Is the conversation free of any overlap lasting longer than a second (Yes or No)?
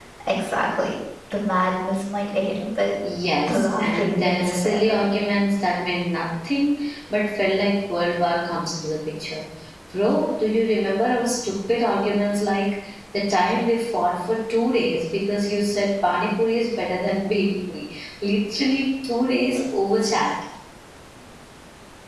No